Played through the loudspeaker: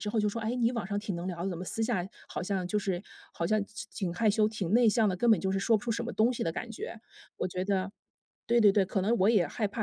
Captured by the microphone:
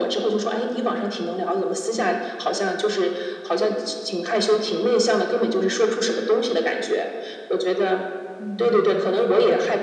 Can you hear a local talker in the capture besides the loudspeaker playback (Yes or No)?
Yes